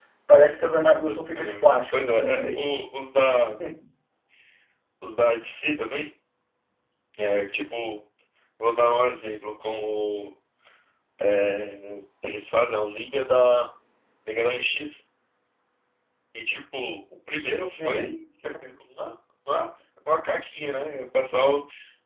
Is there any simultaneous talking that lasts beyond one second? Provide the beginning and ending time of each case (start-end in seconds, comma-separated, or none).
1.3-2.8